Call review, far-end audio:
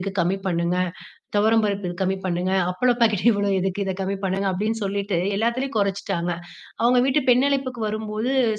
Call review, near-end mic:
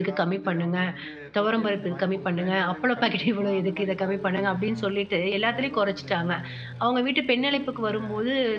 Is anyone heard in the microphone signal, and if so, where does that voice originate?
both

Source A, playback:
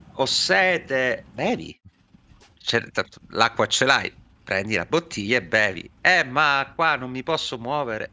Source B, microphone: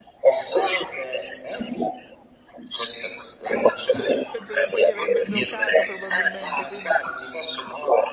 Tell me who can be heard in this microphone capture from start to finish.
both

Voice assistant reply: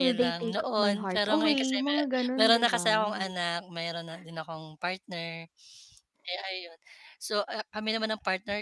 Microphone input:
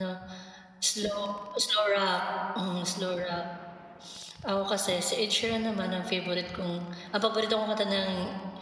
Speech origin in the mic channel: user only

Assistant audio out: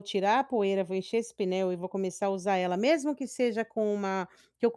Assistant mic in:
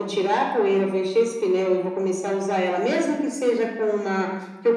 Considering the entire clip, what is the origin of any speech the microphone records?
echo only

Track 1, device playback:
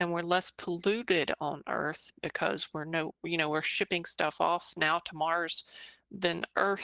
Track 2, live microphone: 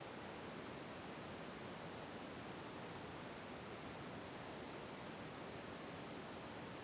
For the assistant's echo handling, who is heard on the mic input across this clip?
neither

